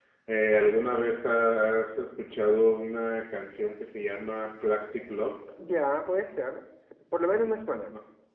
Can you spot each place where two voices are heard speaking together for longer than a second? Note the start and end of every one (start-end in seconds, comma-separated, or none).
none